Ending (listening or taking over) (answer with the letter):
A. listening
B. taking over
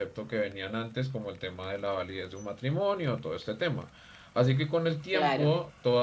A